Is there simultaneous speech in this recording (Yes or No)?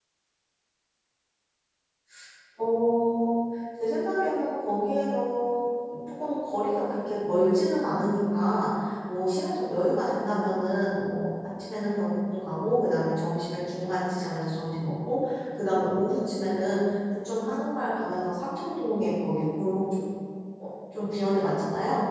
No